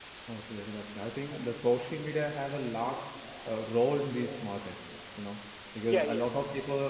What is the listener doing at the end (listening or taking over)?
listening